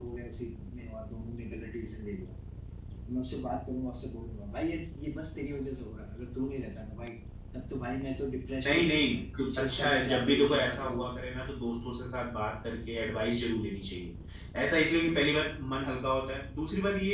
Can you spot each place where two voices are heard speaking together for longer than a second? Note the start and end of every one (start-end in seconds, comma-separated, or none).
8.7-11.0